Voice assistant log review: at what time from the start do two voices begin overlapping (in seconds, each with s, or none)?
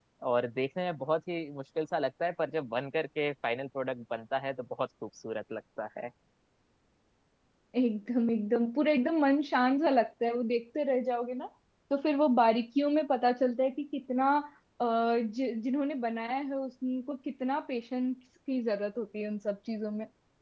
none